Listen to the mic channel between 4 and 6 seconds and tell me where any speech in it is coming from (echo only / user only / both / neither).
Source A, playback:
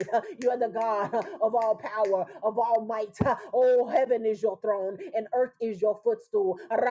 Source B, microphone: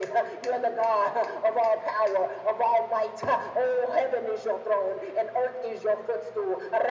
echo only